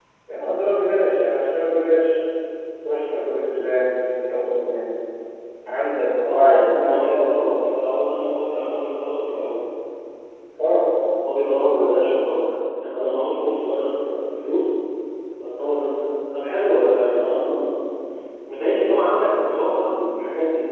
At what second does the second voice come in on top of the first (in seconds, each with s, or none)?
6.2 s